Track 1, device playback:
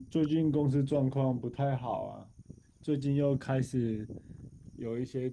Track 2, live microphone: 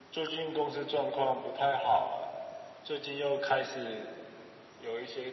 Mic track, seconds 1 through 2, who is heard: echo only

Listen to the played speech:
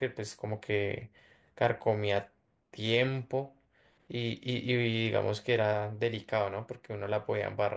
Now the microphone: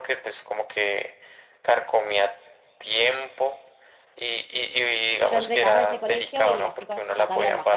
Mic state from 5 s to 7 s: both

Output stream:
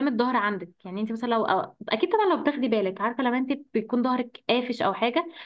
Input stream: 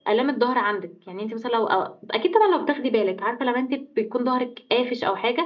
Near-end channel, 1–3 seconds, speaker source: echo only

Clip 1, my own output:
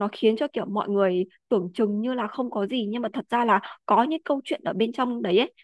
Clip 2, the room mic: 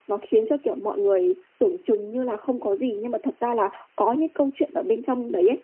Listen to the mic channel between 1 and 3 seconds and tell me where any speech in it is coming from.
echo only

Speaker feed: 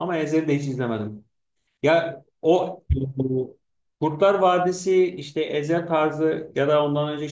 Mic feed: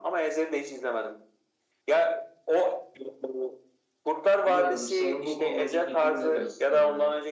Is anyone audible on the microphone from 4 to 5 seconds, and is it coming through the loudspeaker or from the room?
both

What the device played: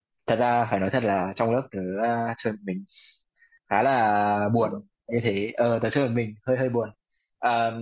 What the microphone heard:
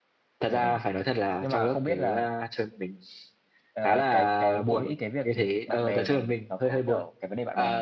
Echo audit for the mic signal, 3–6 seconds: both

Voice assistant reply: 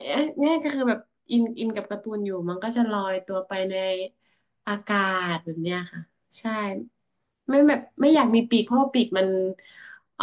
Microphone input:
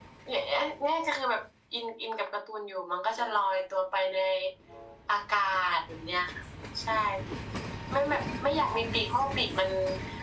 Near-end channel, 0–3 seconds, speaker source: echo only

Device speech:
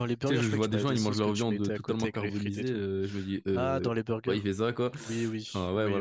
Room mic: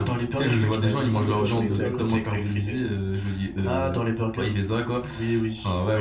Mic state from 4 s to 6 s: echo only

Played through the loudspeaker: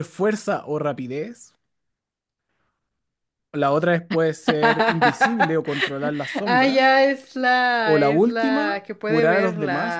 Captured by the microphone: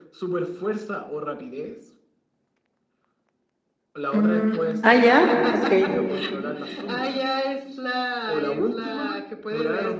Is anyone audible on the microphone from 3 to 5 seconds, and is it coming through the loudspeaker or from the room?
both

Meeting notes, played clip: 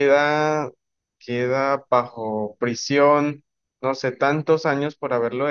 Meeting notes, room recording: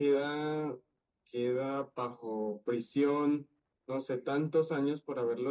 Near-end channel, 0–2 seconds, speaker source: echo only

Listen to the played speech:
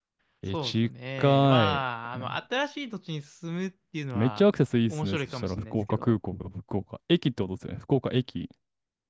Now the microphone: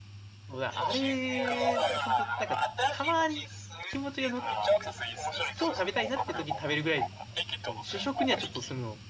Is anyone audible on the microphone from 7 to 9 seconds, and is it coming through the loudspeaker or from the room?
both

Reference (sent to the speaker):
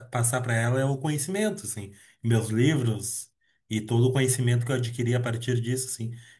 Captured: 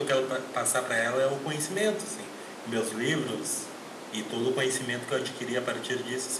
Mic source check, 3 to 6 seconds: echo only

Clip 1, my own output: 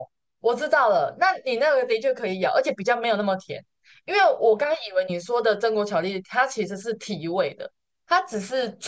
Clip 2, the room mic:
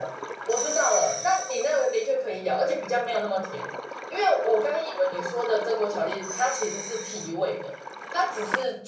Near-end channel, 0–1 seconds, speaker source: echo only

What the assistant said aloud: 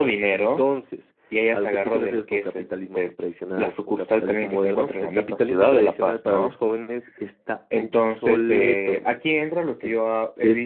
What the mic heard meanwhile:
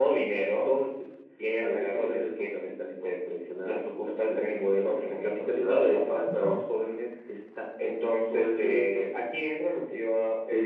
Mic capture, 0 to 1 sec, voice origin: echo only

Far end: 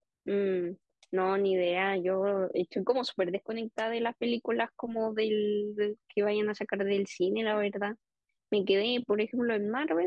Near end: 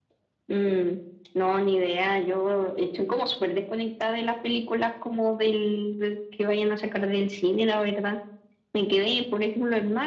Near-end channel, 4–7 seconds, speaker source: echo only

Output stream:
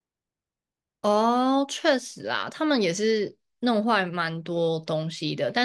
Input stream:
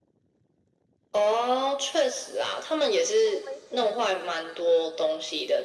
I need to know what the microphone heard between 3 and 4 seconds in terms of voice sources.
both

